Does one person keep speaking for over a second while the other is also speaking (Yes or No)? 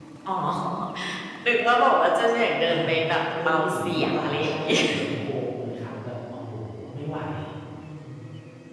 Yes